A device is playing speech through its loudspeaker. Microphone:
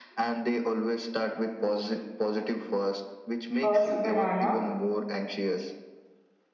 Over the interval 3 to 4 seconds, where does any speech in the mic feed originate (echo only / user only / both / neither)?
both